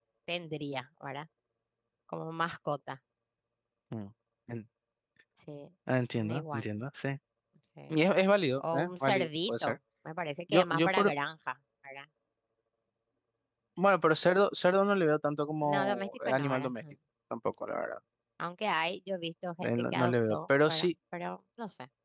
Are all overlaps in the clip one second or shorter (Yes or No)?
No